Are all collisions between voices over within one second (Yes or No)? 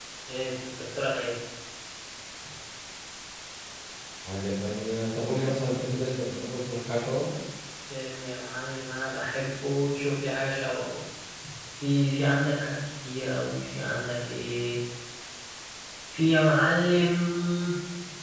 Yes